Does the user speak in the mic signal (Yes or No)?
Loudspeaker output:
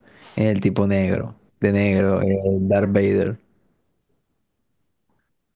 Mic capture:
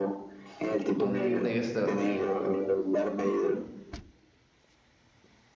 Yes